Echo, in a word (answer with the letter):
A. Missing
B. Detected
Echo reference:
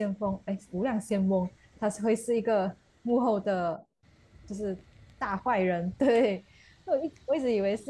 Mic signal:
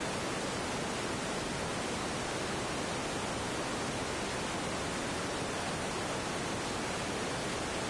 A